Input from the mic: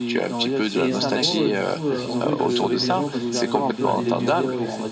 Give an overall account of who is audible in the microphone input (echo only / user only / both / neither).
both